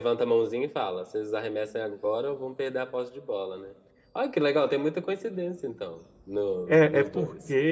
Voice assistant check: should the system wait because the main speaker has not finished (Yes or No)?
No